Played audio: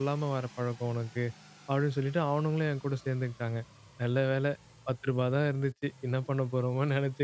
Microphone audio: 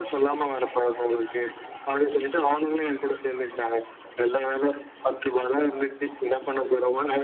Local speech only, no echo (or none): none